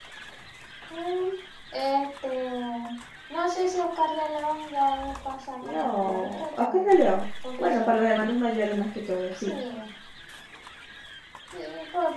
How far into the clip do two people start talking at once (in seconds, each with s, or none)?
5.6 s